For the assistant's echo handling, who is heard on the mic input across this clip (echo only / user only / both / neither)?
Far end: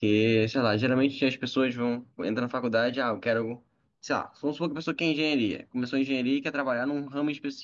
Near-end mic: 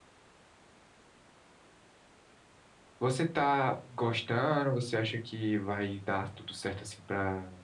user only